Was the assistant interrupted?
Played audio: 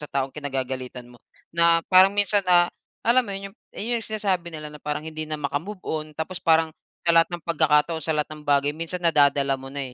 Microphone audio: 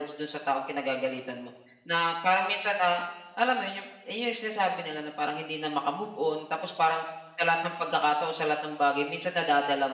No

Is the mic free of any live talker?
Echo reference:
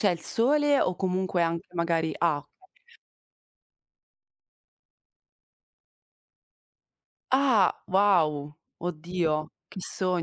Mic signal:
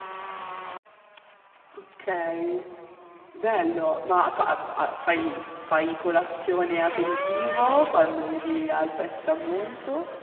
No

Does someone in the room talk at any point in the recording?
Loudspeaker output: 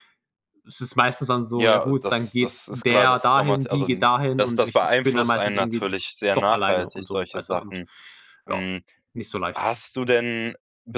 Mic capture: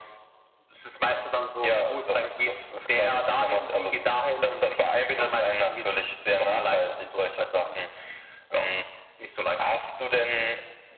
No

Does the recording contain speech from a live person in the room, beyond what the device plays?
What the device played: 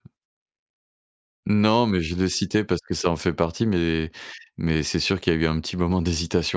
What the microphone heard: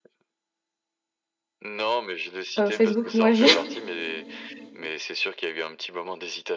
Yes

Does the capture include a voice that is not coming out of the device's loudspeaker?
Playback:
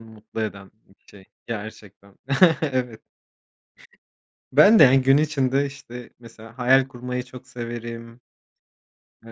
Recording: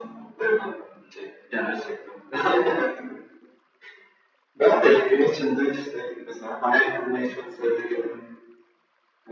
No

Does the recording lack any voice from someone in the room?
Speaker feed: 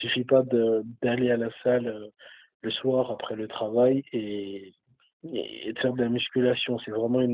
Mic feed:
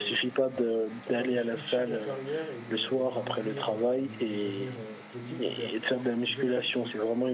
No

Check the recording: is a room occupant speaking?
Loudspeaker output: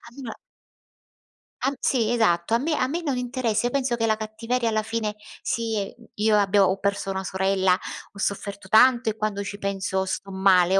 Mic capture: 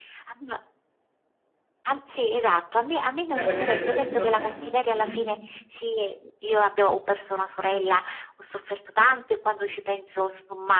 Yes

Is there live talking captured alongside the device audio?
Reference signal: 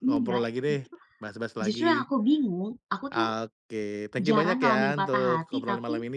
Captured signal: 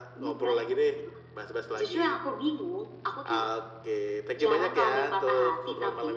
No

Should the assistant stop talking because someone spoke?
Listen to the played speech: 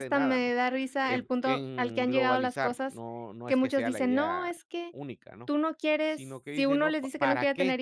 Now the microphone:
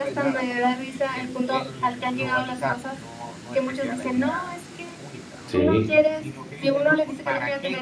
Yes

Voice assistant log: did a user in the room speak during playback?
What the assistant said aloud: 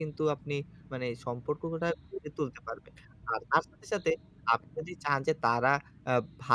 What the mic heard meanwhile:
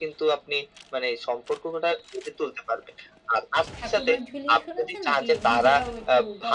Yes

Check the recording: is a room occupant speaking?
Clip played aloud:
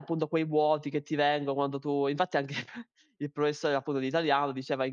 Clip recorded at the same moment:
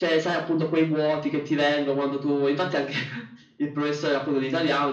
No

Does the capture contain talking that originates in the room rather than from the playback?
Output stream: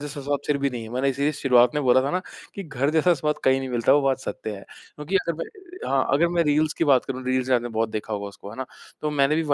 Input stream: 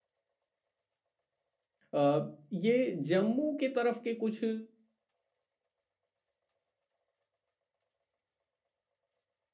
Yes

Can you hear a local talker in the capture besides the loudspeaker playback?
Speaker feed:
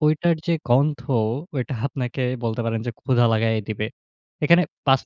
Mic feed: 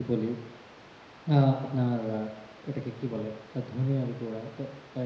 Yes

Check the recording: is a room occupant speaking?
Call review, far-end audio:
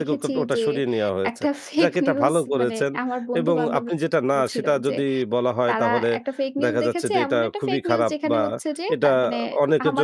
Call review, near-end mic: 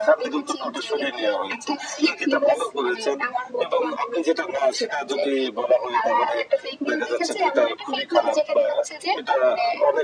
No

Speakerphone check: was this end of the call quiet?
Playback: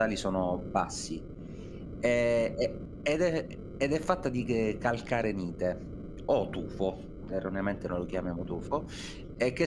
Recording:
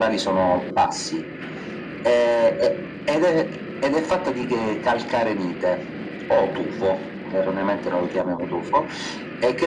Yes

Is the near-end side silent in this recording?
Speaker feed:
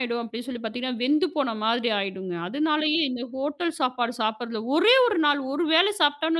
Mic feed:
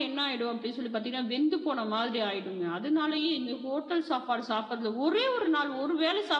Yes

